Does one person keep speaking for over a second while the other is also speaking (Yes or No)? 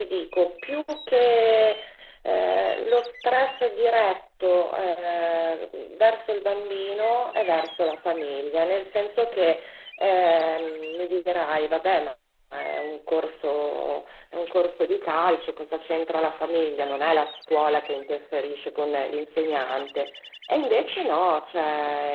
No